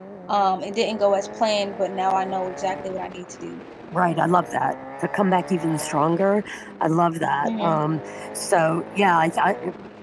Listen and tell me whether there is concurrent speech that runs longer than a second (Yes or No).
No